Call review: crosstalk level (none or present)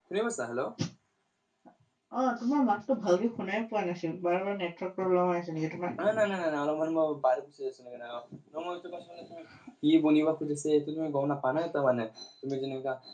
none